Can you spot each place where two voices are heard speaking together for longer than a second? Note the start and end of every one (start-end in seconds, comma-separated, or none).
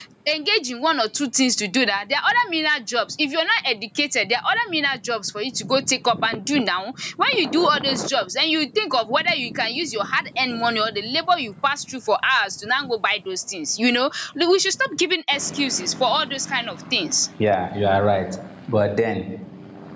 none